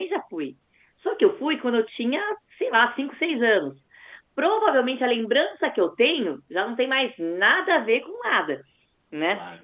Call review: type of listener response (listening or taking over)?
listening